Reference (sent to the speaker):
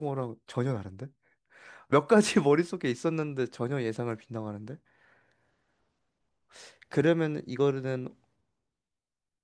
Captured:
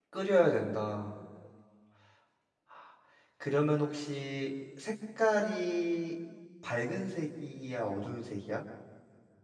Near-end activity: present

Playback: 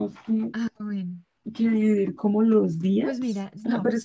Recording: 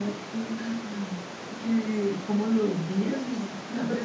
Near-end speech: none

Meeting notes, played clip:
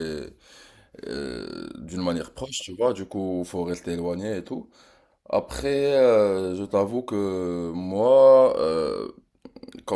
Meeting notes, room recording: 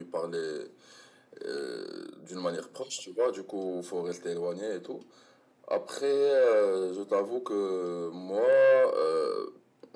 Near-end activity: none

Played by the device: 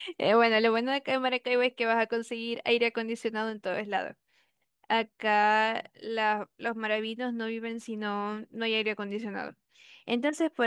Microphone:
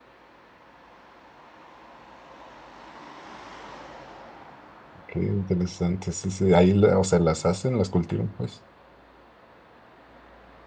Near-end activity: present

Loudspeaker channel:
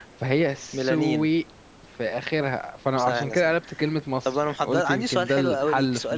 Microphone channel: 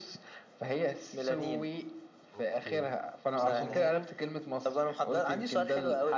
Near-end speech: present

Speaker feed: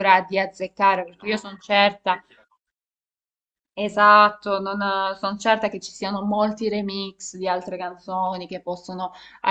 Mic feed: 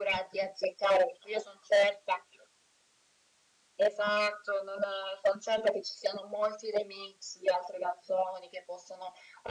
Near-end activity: none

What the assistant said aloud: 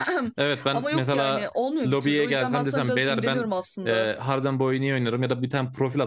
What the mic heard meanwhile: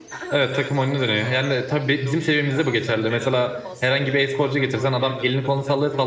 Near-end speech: present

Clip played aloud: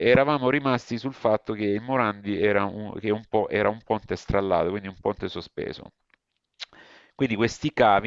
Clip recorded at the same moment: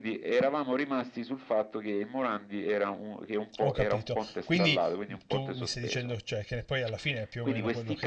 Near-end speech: present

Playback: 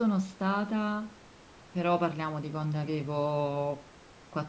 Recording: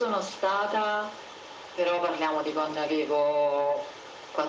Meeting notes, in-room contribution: none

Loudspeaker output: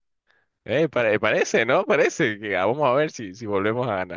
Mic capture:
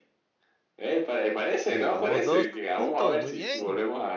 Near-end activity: present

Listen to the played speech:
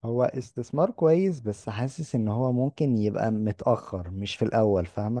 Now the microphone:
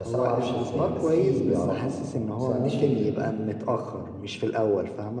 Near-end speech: present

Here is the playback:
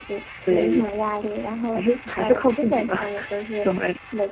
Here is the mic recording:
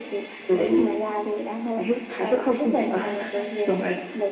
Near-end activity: present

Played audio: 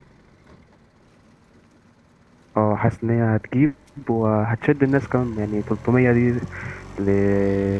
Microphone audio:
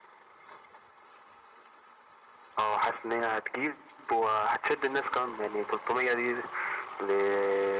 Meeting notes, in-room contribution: none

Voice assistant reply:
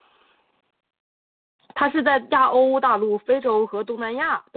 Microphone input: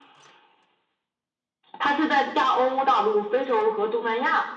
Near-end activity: none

